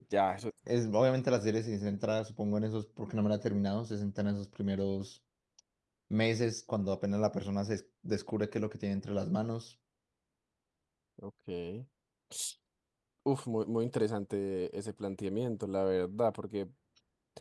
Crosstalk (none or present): none